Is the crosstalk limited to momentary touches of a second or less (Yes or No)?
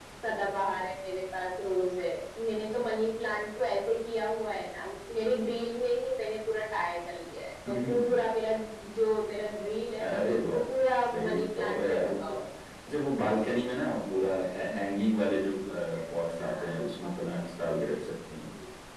No